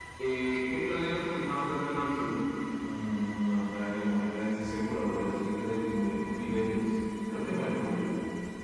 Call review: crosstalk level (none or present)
none